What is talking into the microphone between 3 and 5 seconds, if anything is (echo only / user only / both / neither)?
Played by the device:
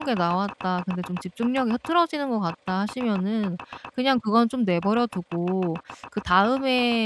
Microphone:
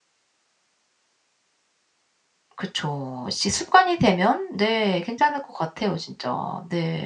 user only